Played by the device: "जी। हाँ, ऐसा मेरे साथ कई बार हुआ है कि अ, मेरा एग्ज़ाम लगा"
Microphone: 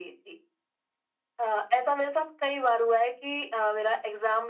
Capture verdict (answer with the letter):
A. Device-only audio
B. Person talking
A